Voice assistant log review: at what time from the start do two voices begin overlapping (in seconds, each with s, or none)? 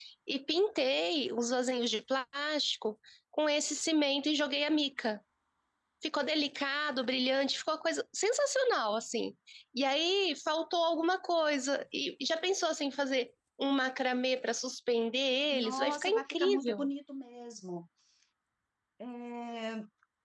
15.5 s